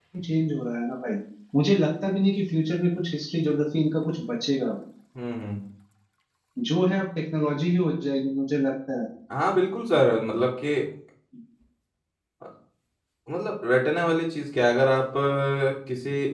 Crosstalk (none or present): none